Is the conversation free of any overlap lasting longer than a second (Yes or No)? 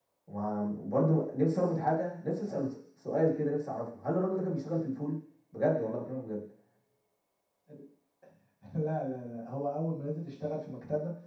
Yes